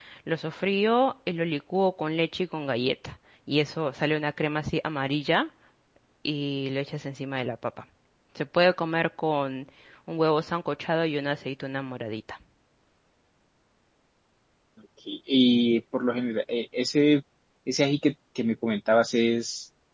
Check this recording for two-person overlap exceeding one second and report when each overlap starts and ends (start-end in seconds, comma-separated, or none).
none